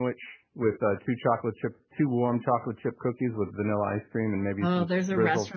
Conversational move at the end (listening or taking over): taking over